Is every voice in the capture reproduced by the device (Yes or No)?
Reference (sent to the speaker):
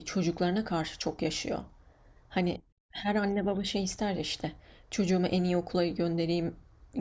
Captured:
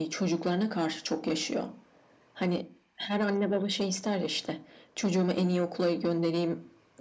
Yes